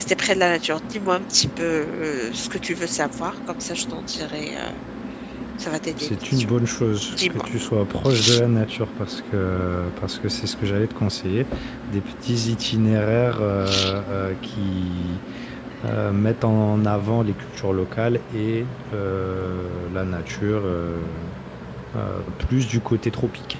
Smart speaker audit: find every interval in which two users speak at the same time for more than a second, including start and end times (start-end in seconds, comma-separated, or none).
none